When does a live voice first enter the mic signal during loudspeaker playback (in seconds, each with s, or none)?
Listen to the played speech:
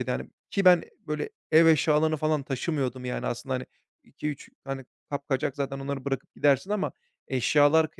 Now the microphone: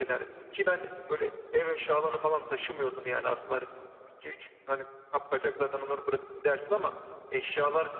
none